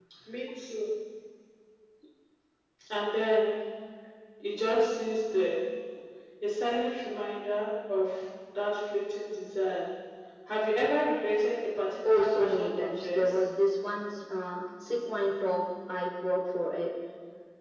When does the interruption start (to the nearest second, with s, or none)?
12 s